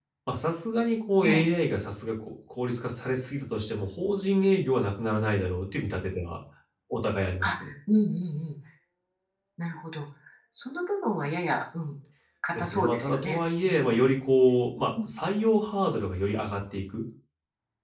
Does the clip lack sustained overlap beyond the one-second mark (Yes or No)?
No